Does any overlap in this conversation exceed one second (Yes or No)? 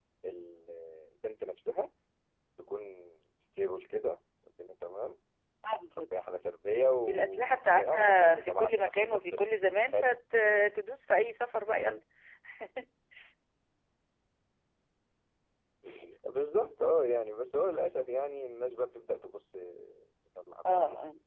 Yes